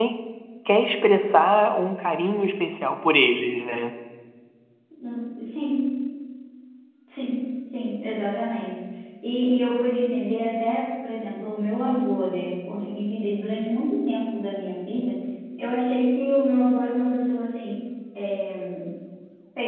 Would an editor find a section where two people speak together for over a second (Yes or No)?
No